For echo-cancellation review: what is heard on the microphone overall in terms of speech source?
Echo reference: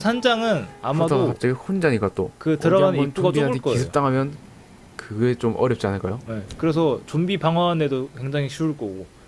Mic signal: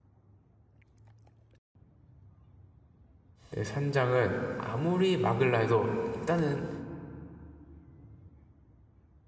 user only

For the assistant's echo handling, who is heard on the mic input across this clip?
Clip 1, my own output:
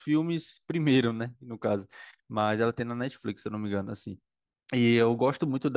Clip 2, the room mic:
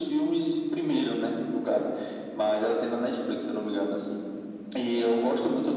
echo only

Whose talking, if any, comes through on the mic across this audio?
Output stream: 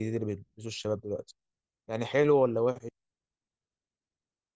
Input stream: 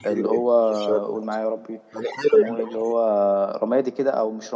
both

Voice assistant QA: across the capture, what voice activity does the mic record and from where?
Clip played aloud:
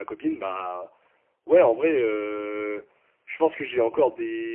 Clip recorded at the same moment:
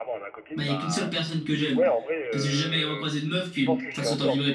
both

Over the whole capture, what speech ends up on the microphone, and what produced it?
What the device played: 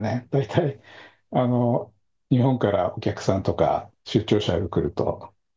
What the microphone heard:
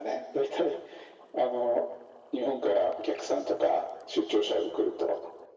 echo only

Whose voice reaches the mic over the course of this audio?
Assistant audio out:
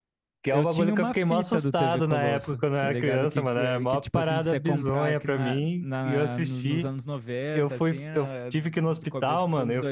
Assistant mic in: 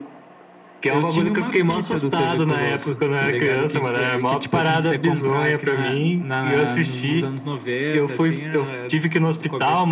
echo only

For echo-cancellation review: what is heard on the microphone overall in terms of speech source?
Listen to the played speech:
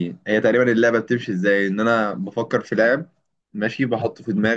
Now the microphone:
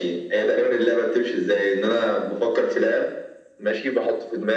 echo only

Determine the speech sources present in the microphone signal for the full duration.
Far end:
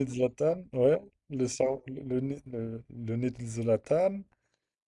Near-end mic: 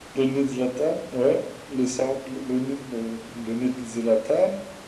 echo only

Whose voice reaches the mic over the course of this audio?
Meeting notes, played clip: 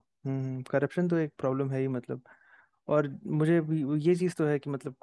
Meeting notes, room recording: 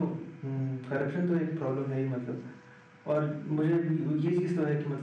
echo only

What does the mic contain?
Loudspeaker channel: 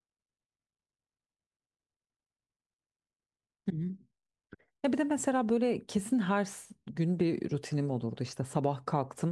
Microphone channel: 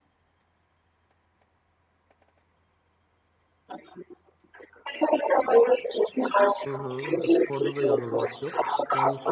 both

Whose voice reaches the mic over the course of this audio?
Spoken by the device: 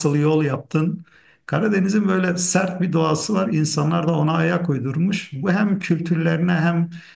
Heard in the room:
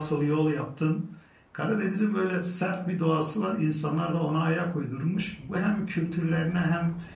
echo only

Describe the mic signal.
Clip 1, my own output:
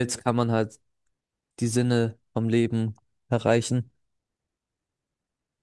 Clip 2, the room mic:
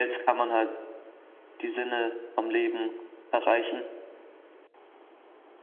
echo only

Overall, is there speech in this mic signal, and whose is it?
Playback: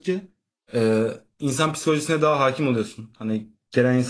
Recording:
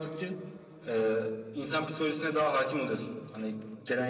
echo only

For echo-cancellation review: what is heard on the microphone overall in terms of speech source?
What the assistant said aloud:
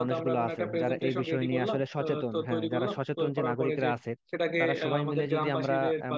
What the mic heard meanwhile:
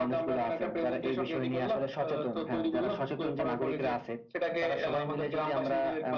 echo only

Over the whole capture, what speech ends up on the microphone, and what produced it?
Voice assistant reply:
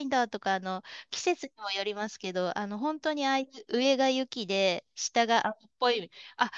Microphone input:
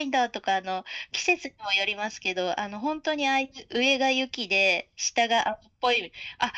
echo only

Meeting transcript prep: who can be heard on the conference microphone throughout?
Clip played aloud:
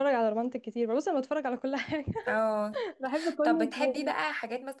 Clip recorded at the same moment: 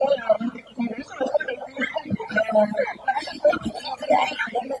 echo only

